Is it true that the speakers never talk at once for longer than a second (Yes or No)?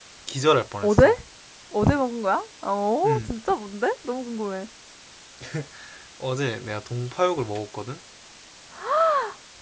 Yes